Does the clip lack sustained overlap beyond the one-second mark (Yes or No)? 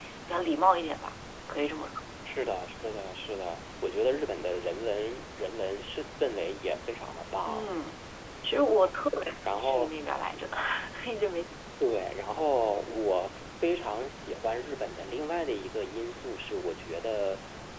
Yes